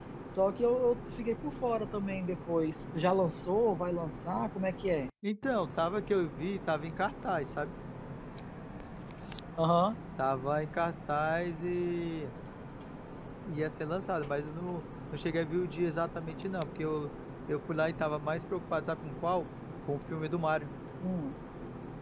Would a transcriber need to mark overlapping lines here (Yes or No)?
No